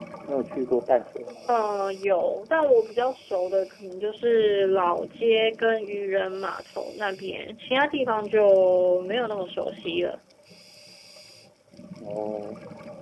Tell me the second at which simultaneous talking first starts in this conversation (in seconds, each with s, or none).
none